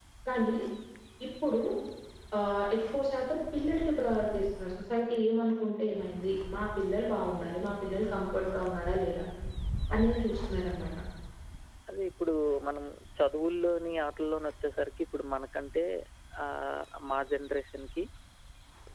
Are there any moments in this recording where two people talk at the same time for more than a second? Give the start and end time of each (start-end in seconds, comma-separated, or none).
none